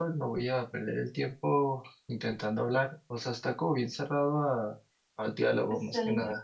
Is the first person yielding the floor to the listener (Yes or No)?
Yes